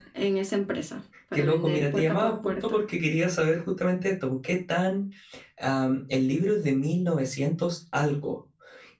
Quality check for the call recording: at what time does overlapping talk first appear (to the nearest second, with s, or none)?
1 s